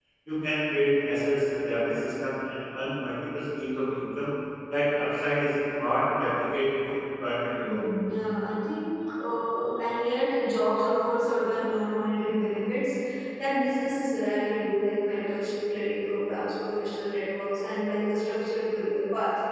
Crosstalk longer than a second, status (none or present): none